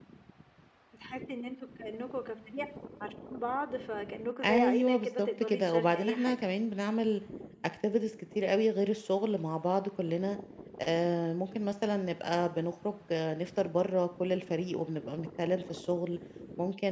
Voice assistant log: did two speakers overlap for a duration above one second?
Yes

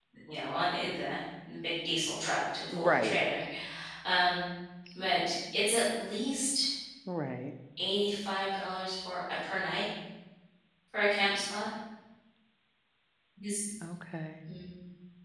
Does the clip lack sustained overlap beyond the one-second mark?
Yes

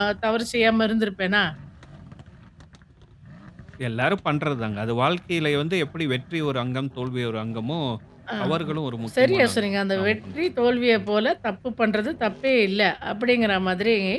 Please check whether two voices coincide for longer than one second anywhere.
Yes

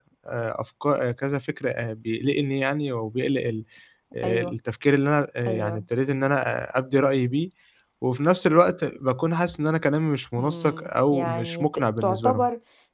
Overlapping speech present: Yes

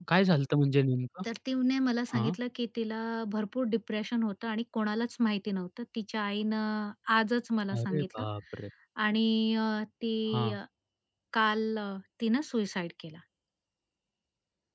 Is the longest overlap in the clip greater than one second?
No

